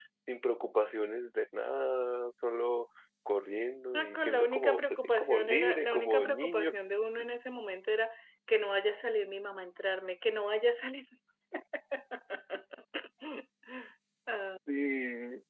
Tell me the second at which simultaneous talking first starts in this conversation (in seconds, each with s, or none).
3.9 s